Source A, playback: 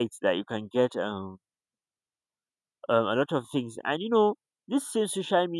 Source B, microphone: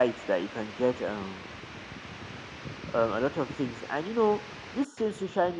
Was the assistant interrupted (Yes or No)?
No